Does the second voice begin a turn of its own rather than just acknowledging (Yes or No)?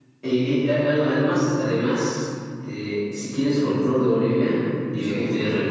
No